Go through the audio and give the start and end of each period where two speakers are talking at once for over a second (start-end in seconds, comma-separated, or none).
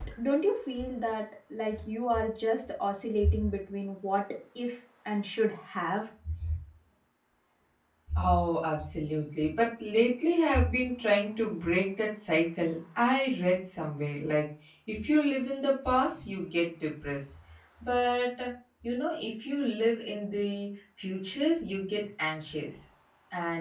none